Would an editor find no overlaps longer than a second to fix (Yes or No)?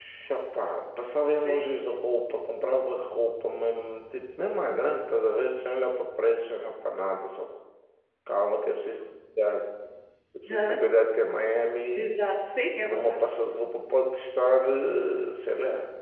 Yes